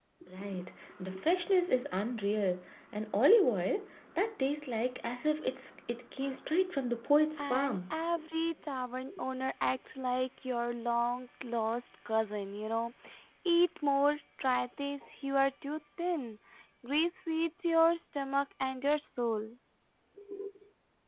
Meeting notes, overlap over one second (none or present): none